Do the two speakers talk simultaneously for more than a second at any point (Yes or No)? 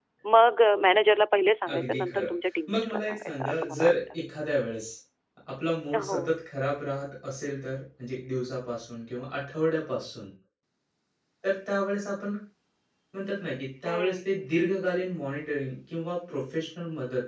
Yes